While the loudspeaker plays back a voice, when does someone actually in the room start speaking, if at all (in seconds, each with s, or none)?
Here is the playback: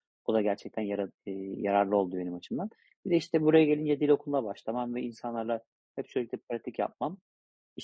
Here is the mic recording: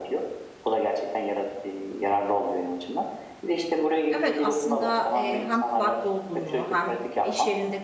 4.1 s